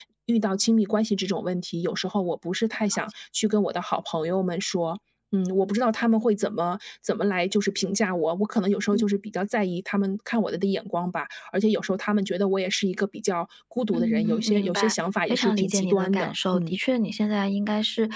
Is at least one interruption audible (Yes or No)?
Yes